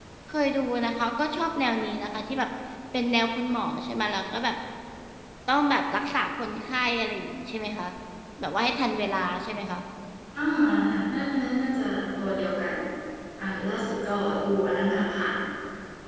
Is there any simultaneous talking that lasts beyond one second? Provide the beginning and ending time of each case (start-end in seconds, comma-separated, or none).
none